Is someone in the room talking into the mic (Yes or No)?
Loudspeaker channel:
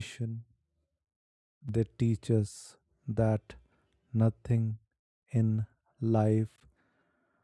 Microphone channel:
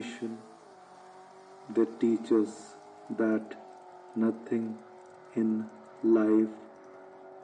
No